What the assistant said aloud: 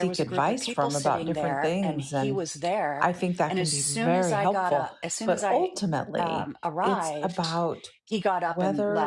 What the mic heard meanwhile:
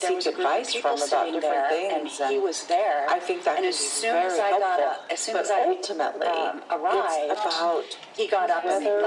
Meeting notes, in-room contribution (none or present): present